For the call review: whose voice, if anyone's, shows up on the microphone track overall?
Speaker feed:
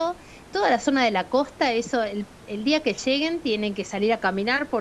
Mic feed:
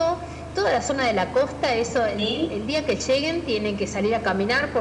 both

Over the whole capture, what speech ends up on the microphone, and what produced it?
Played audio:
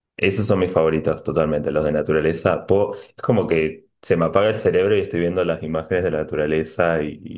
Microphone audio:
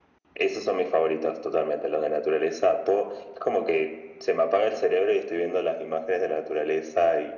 echo only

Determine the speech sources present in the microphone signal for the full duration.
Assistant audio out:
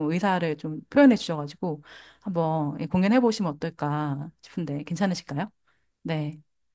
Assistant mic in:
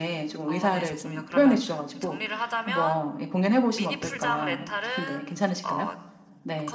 both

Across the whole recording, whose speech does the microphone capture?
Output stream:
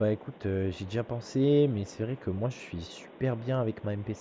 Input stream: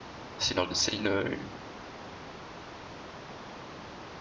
user only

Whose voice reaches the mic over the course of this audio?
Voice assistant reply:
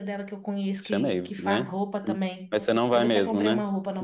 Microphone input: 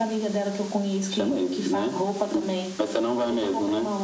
echo only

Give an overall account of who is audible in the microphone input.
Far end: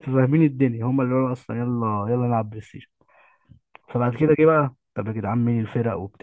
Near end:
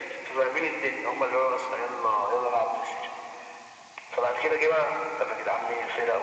echo only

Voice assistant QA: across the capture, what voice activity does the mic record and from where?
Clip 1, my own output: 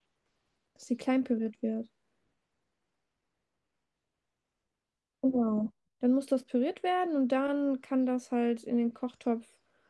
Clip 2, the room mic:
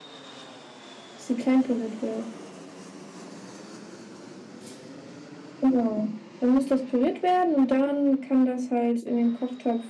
echo only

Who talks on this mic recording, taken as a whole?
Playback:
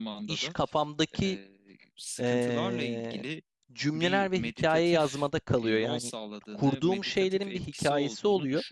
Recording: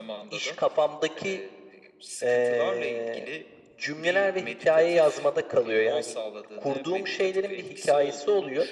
echo only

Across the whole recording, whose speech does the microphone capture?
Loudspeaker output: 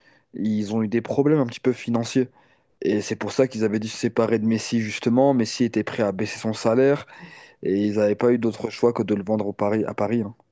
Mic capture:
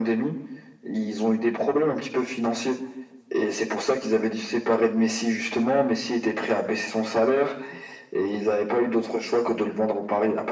echo only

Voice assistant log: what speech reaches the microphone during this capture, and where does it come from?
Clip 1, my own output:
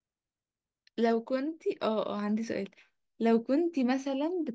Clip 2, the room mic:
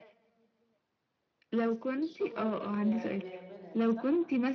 both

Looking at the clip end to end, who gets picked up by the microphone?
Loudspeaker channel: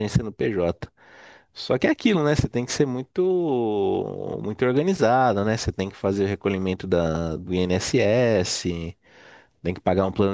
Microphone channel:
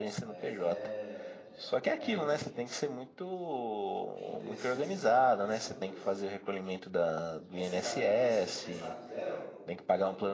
both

